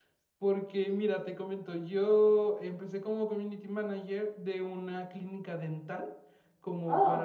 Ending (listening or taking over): listening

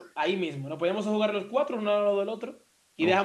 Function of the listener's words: listening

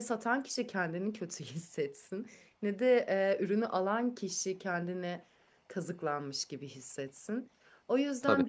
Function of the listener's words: listening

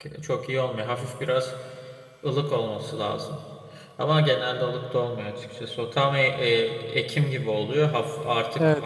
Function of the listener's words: listening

